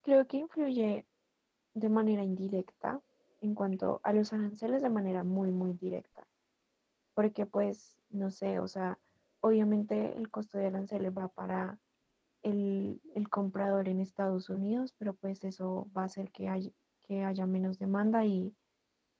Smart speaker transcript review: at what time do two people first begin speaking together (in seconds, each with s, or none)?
none